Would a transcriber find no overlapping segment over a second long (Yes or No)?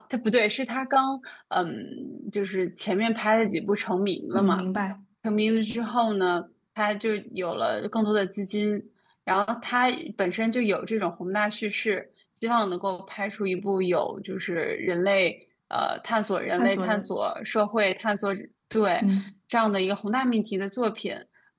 Yes